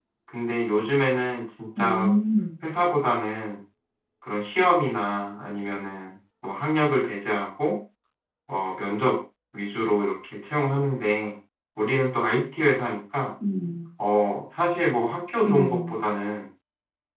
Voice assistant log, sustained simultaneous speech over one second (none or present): none